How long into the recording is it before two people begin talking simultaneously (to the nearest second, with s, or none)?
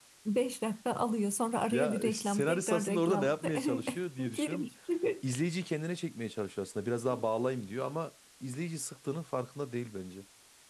2 s